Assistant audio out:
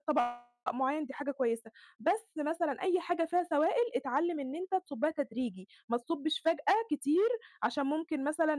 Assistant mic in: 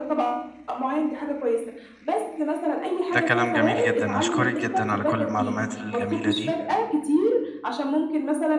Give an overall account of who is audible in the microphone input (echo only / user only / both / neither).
both